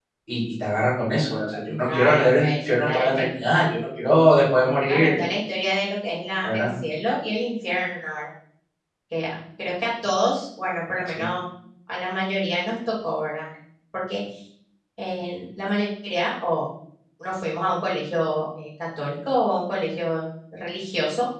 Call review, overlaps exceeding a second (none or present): present